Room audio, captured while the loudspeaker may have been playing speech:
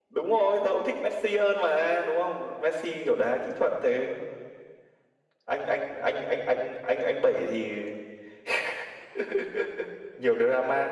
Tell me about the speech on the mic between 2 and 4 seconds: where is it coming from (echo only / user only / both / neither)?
echo only